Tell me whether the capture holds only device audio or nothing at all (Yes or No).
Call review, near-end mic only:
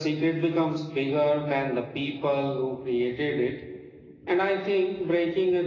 Yes